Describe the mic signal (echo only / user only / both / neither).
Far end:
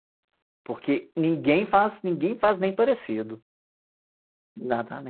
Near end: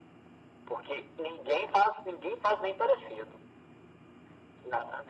echo only